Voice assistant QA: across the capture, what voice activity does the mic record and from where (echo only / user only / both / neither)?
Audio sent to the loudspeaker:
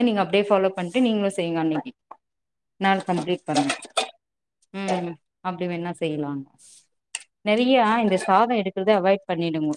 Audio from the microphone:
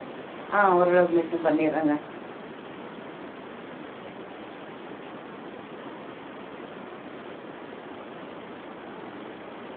user only